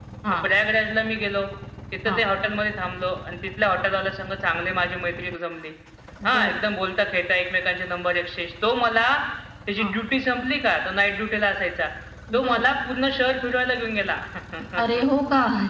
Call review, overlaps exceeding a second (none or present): none